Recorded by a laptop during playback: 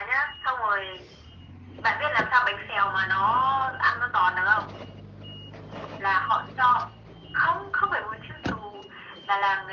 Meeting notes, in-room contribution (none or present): none